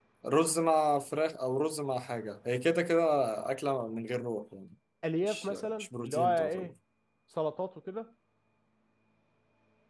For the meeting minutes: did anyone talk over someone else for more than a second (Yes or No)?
Yes